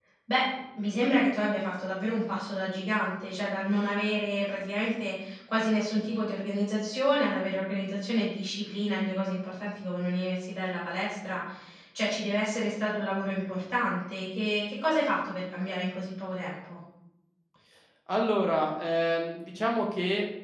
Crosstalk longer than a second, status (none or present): none